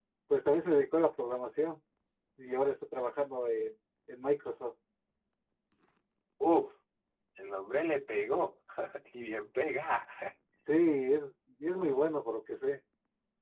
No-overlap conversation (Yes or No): Yes